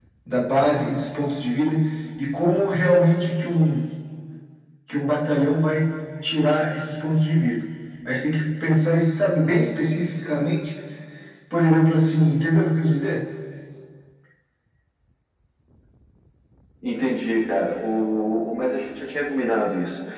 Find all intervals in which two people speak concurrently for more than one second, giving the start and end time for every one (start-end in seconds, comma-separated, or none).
none